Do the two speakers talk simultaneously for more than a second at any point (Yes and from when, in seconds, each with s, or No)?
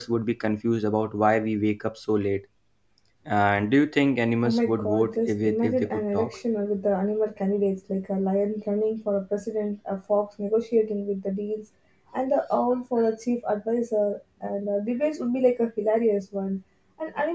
Yes, from 4.4 s